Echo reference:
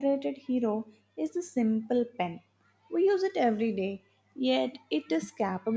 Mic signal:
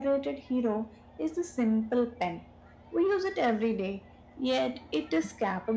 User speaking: No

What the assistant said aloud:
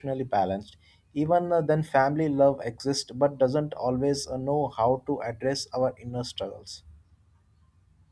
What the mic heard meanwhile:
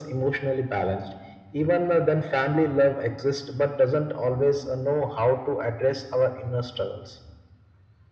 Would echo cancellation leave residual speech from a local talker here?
No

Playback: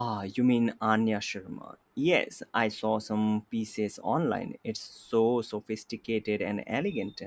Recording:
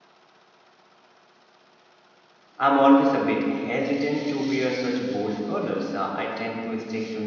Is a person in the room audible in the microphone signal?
Yes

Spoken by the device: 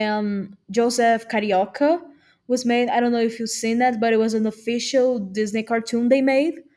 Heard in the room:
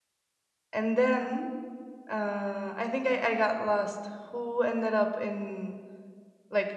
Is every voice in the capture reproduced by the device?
No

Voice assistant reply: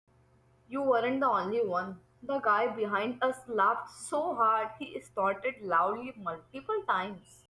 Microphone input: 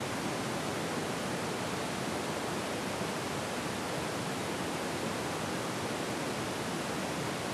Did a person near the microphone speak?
No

